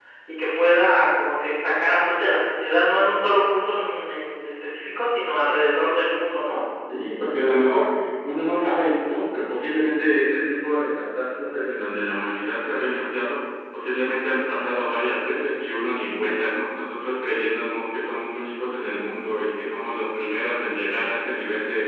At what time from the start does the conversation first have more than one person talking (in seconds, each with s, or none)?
none